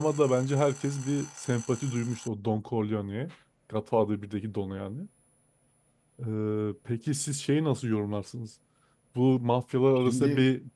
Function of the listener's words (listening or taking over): listening